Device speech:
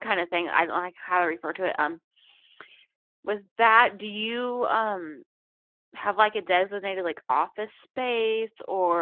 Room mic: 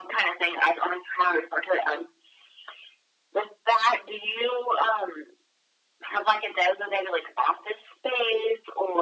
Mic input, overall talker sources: echo only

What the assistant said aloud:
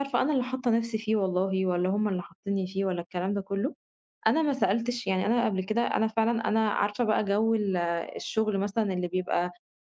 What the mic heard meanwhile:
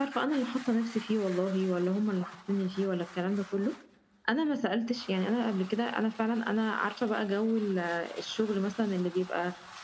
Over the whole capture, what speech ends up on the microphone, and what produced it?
echo only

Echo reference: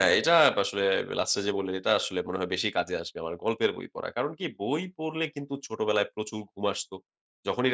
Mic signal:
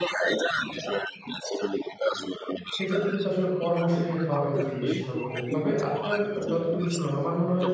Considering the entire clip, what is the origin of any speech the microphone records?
both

